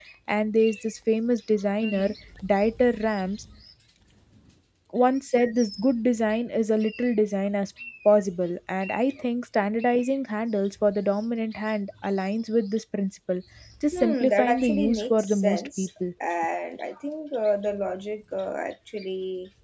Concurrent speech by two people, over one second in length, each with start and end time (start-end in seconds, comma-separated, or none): 13.9-15.9